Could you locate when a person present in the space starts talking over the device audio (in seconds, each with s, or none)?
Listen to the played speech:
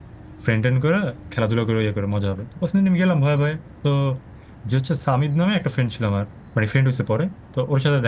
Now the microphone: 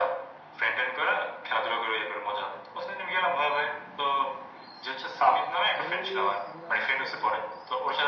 5.8 s